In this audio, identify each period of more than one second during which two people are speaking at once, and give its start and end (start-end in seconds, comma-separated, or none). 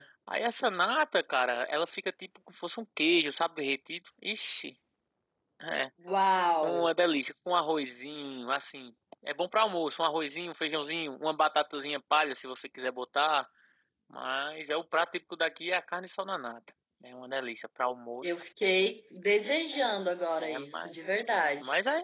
none